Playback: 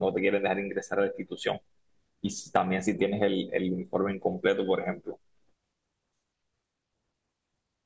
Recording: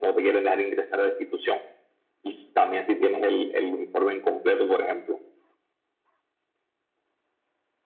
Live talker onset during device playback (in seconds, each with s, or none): none